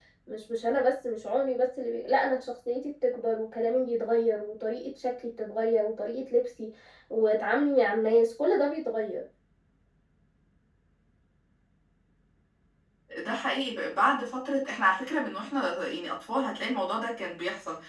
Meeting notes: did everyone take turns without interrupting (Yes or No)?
Yes